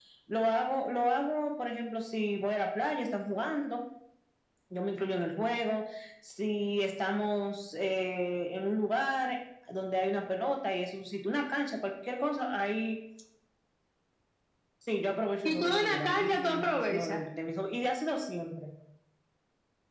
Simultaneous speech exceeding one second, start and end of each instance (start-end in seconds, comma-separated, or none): 15.4-17.2